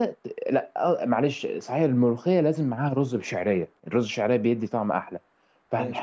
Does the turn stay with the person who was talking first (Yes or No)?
Yes